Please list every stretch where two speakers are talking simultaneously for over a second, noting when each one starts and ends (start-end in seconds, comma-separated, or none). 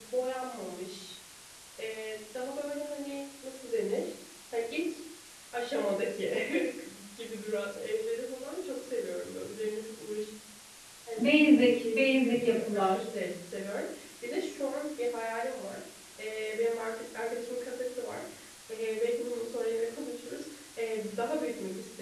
11.7-13.0